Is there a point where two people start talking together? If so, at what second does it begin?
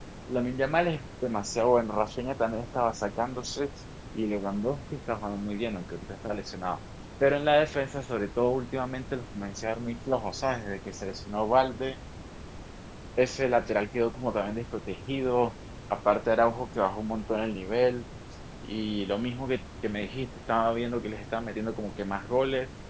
none

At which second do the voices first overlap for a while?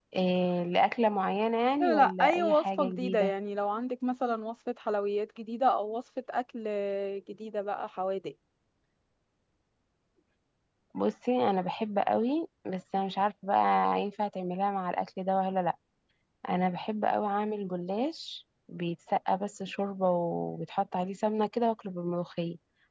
1.8 s

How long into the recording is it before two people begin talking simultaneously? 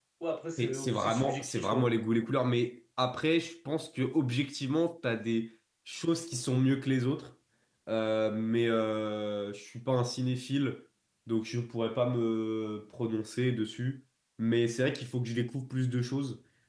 0.6 s

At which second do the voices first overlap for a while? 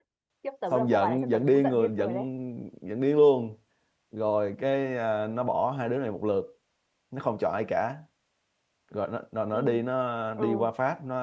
0.7 s

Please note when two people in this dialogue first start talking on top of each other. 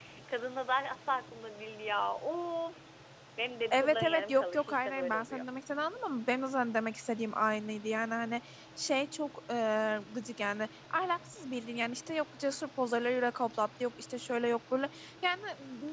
3.7 s

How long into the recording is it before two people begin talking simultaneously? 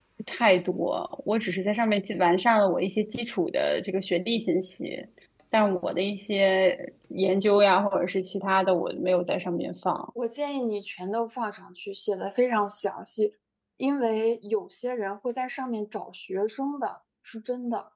none

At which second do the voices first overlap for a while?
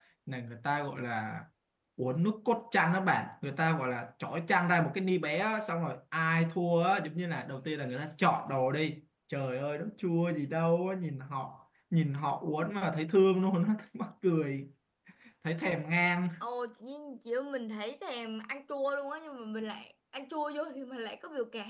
none

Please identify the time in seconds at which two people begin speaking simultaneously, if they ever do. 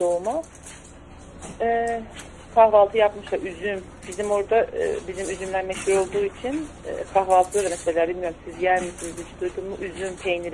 none

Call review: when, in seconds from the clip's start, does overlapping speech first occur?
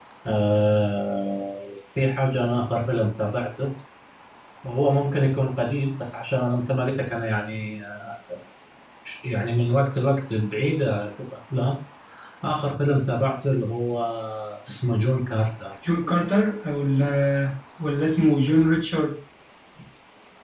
none

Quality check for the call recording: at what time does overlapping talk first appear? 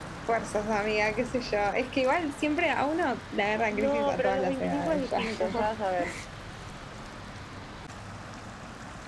3.7 s

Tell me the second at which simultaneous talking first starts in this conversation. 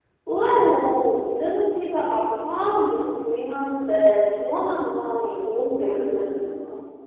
5.2 s

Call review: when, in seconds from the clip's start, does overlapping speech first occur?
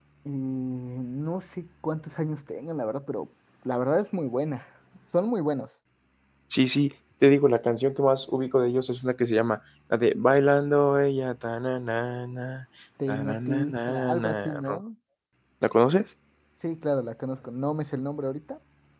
13.0 s

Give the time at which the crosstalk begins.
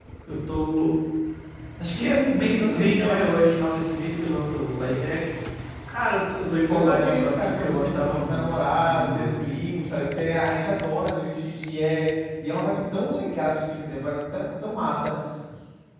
1.8 s

